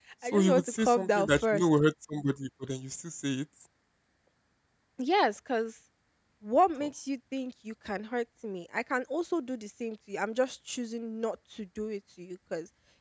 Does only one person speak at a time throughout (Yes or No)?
No